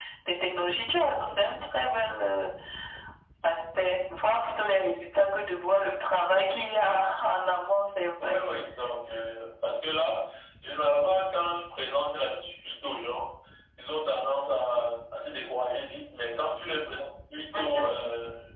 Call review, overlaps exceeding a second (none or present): none